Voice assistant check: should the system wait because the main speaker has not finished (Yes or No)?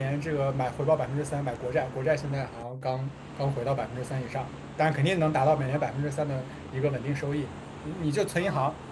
Yes